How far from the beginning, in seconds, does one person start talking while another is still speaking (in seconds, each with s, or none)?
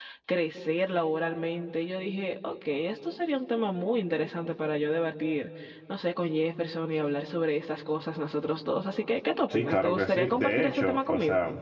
9.5 s